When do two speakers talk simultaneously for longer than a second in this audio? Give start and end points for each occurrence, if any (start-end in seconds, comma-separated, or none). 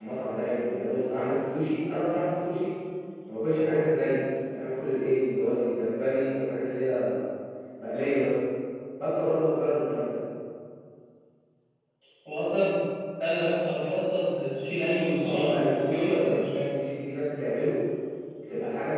15.2-16.4